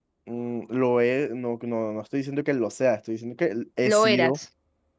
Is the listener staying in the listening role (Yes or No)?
Yes